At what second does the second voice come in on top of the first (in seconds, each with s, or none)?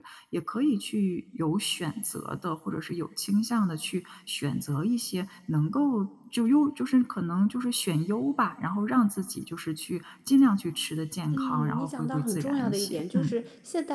11.3 s